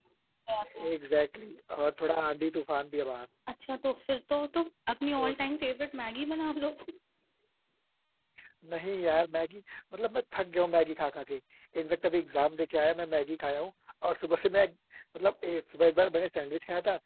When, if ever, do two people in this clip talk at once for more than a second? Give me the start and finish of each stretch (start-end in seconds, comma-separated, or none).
none